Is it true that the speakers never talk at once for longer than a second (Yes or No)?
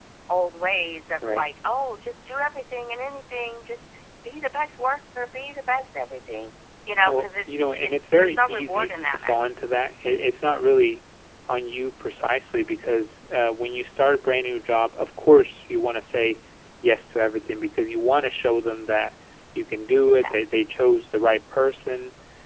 No